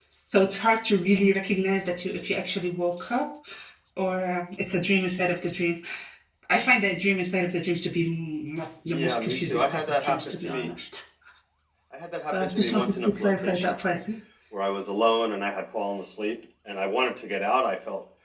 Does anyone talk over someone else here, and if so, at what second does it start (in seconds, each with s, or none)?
8.8 s